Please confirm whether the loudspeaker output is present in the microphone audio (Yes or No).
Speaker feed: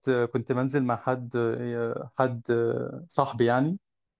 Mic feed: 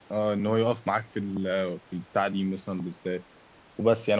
No